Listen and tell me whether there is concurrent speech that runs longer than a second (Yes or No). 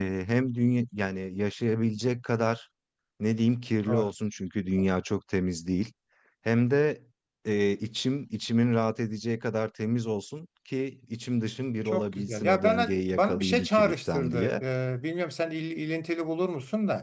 Yes